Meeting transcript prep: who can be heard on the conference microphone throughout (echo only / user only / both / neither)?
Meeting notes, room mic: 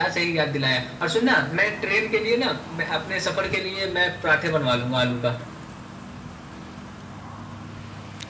echo only